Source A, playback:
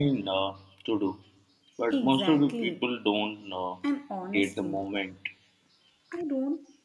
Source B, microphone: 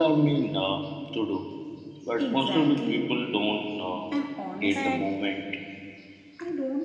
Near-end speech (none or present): present